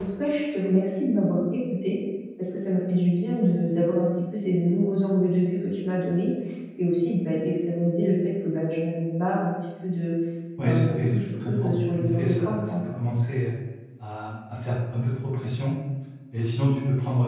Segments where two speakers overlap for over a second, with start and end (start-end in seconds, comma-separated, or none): 10.6-12.8